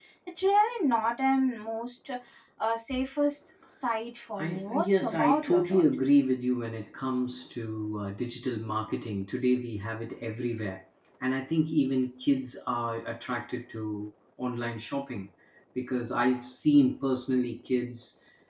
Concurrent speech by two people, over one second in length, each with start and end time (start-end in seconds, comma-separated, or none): 4.4-5.8